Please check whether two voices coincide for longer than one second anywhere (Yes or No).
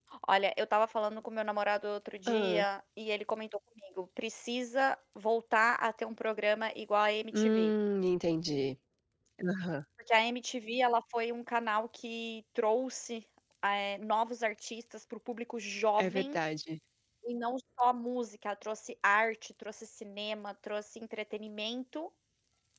No